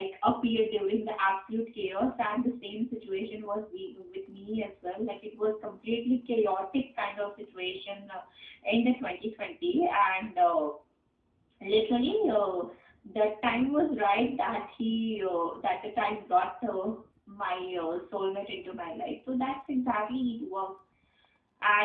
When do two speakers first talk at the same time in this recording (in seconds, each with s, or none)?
none